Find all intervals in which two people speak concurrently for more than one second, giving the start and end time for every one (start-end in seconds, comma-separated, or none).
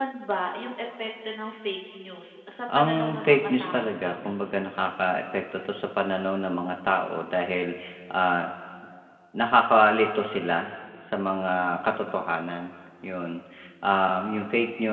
2.8-4.6